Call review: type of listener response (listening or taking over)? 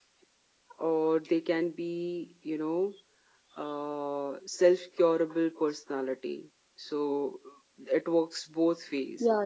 listening